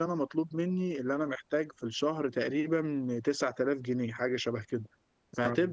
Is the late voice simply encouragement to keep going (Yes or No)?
Yes